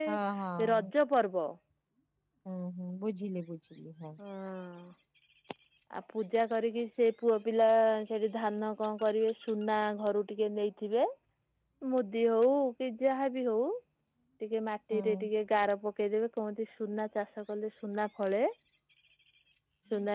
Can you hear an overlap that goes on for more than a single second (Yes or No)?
No